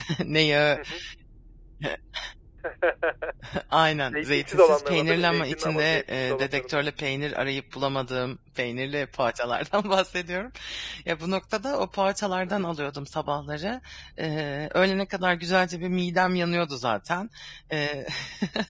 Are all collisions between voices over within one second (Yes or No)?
No